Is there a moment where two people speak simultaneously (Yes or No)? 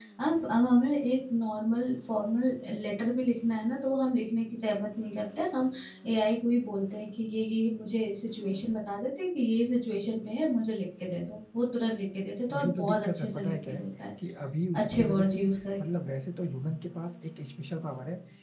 Yes